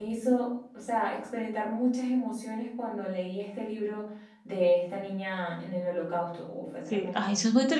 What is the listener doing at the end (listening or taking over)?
taking over